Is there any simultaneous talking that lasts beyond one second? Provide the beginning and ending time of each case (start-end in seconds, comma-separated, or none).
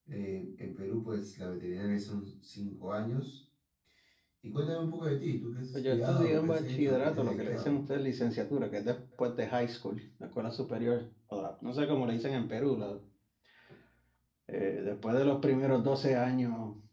5.7-7.8